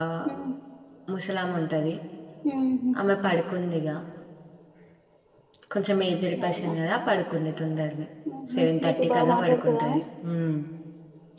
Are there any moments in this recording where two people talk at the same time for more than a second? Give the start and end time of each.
8.5-10.0

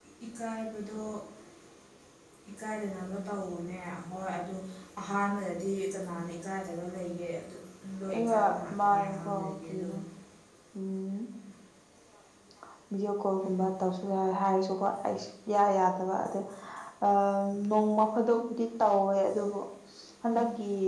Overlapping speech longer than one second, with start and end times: 8.1-9.9

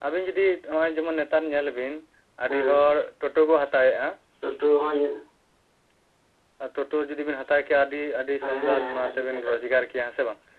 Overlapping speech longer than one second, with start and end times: 8.4-9.7

